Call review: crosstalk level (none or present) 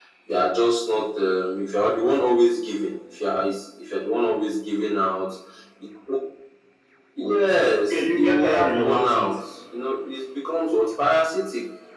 present